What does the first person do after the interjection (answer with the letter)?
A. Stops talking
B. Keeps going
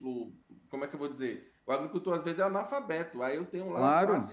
B